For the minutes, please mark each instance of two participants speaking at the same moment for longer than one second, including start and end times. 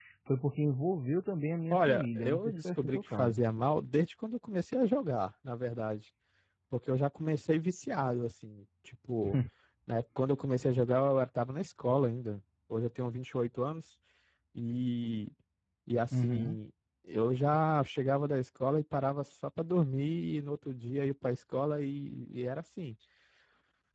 1.7-3.4

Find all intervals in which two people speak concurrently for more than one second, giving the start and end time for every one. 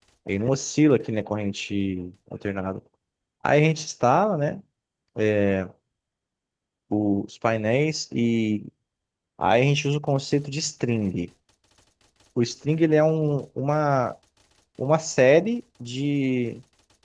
none

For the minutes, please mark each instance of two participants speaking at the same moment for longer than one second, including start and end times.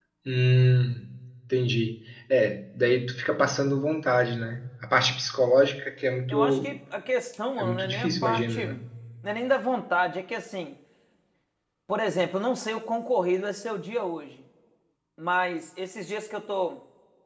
7.6-8.8

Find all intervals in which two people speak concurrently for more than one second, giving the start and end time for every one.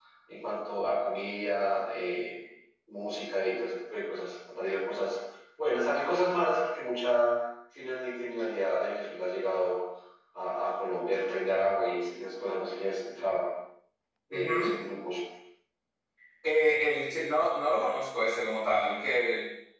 none

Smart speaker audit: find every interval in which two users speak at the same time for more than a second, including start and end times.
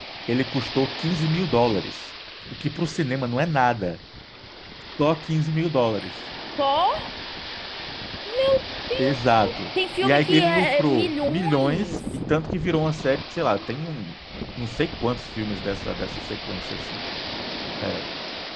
10.0-12.2

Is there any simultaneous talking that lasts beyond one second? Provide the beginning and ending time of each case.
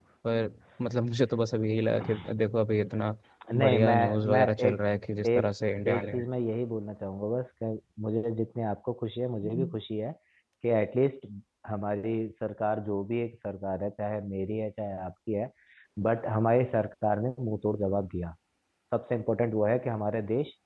3.6-4.8

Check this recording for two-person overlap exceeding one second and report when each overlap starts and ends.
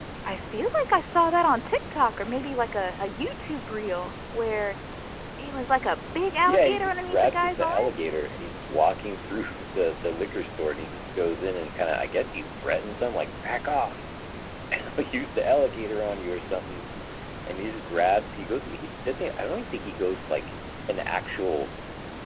6.4-7.9

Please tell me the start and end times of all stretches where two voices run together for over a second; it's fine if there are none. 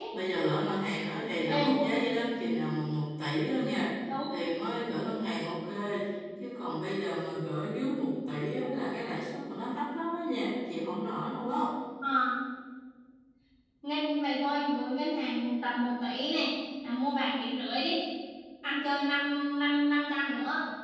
none

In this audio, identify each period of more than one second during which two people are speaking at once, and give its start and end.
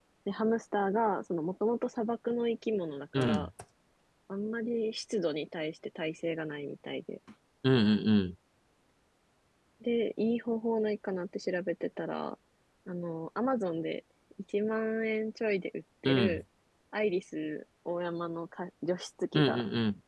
none

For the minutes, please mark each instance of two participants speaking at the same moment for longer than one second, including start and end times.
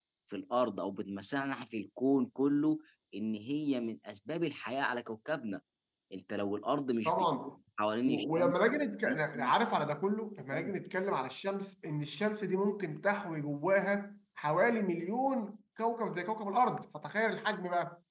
none

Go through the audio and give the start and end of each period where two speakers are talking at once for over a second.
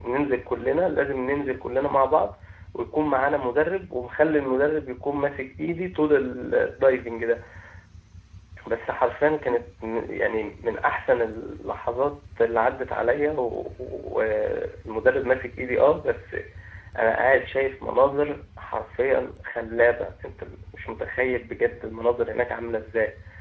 none

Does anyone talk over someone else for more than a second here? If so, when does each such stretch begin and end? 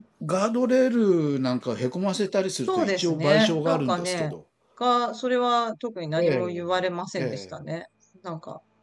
2.7-4.3

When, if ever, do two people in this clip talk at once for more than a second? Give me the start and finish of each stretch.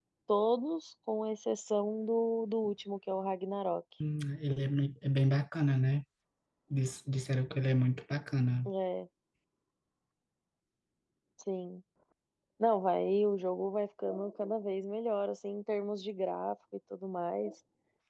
none

